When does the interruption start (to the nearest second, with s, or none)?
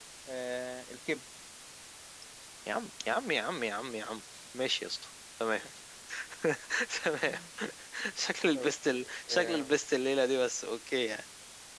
9 s